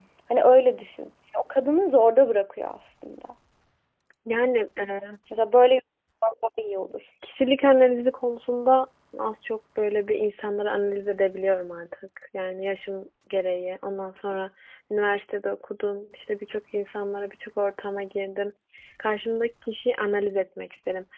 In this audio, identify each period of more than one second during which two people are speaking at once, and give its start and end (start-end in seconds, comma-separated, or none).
none